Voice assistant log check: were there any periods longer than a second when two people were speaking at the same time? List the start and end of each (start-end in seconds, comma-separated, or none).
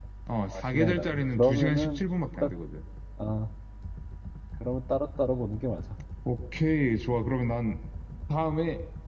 0.5-2.0